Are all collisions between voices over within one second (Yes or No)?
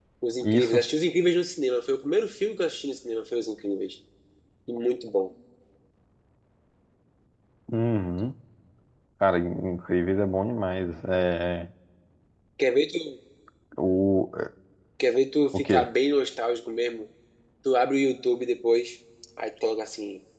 Yes